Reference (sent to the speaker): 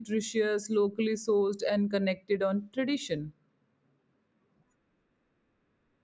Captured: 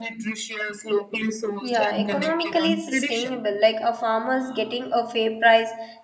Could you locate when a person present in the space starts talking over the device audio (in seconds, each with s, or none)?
1.6 s